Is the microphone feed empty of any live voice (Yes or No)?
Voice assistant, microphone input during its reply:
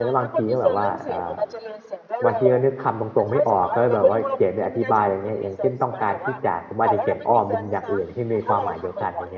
No